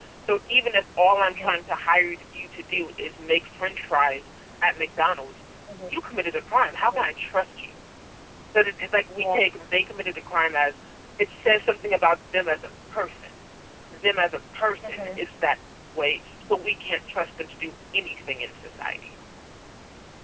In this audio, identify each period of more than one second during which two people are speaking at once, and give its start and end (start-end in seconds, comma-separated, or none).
none